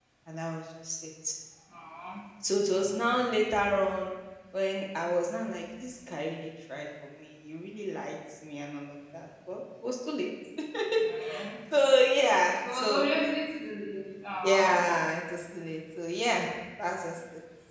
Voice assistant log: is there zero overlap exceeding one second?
Yes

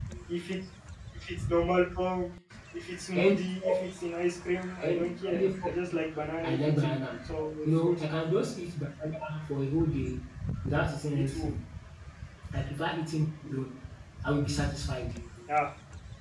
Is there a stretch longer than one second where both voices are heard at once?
Yes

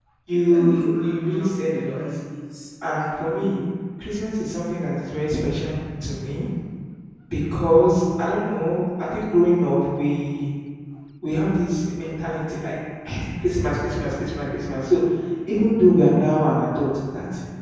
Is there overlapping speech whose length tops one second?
Yes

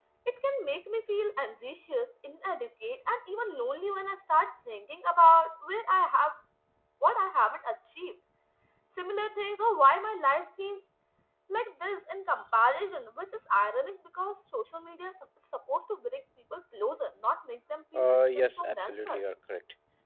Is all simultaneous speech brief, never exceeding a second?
No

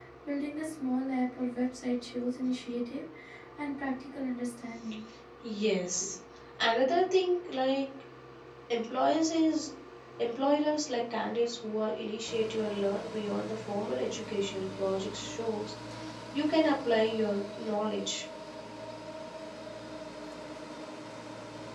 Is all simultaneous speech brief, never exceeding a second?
Yes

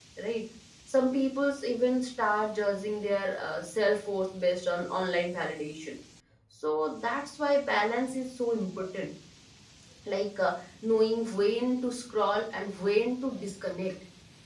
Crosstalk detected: No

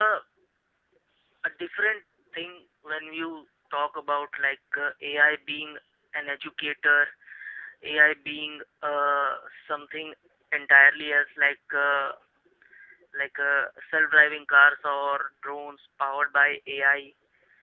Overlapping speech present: No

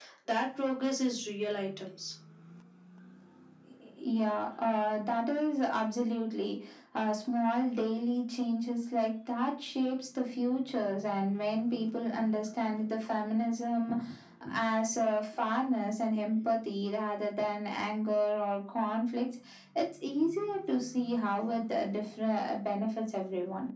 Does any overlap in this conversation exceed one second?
No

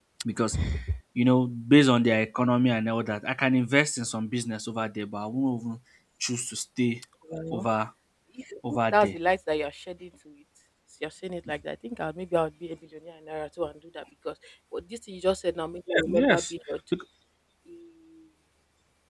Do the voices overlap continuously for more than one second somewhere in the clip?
No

